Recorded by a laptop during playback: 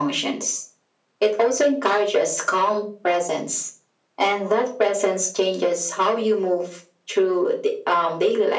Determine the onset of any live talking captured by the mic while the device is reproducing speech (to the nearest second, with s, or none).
none